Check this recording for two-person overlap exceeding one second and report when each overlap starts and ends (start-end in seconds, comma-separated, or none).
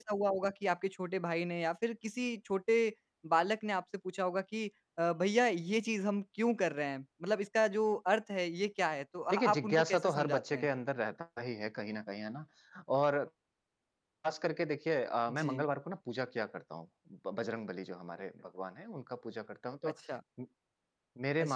9.3-10.7